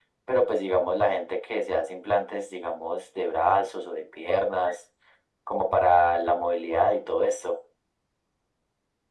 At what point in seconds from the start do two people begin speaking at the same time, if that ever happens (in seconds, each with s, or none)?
none